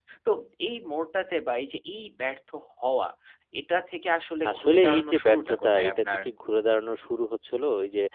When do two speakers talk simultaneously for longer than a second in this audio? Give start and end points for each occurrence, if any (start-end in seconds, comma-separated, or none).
4.5-6.2